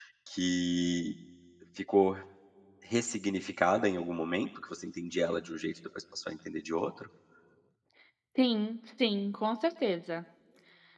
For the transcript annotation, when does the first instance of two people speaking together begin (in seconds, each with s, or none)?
none